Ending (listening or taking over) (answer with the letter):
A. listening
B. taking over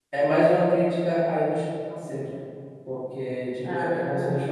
A